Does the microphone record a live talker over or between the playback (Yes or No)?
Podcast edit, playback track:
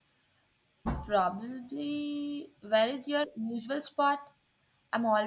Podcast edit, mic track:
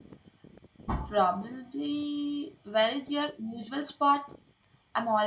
No